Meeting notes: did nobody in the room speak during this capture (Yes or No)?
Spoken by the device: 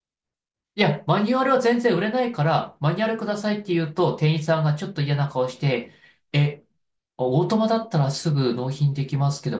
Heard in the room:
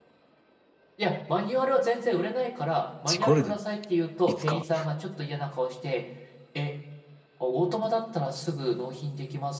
No